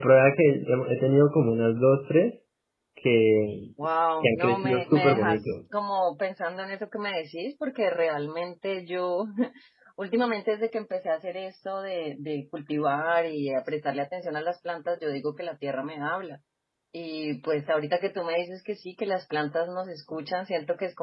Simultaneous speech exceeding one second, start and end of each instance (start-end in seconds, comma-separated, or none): 4.2-5.5